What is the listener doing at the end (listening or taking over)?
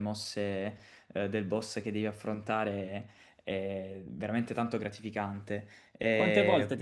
taking over